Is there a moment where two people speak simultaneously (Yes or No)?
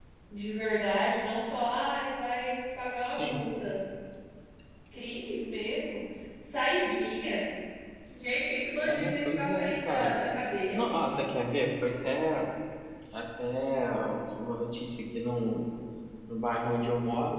Yes